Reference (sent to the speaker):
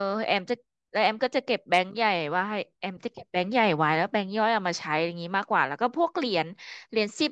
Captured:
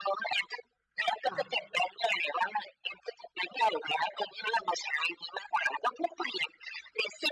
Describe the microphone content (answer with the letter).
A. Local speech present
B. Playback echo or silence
A